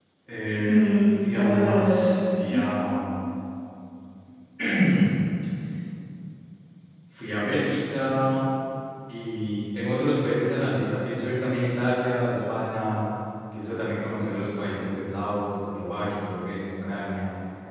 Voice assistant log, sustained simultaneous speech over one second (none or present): present